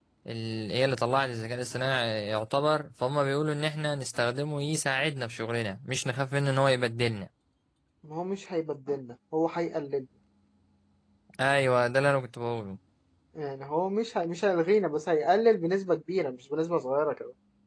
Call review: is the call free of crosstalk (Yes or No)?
Yes